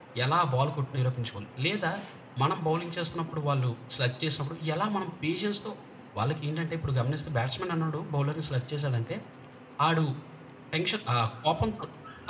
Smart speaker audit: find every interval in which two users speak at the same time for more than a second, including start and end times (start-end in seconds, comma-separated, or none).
none